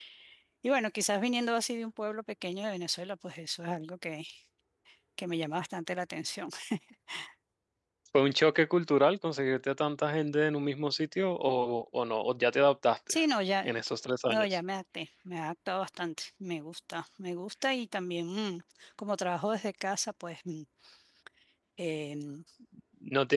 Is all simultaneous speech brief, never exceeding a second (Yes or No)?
Yes